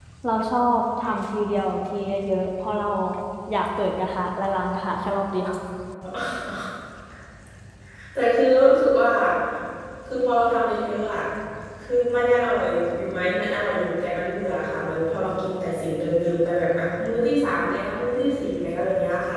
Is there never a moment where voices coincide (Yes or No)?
Yes